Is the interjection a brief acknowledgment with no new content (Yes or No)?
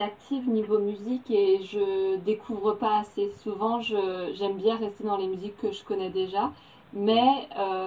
Yes